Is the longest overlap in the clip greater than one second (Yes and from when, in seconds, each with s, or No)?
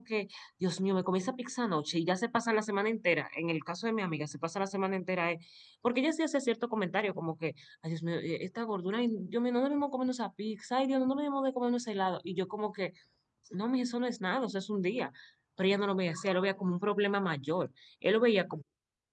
No